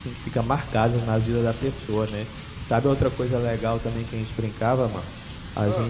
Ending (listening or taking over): listening